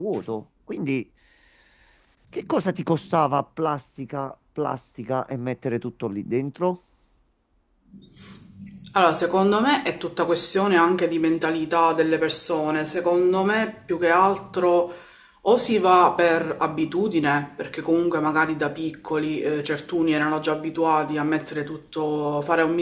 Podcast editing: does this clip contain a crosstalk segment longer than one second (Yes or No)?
No